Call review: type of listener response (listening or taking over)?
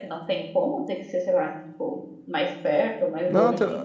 taking over